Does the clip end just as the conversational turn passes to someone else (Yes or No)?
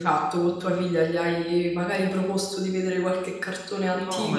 Yes